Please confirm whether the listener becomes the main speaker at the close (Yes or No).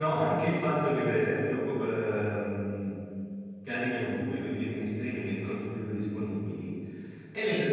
No